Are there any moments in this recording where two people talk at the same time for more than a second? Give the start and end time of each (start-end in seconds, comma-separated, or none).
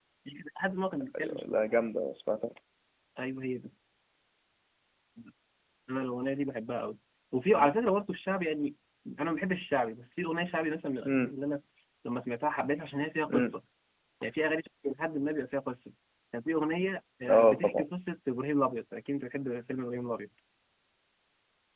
none